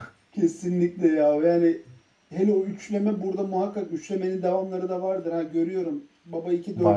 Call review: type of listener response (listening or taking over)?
listening